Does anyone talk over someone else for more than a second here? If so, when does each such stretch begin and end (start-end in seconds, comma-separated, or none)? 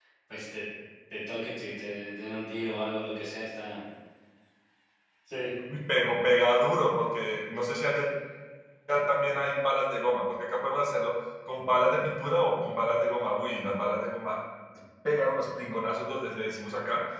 none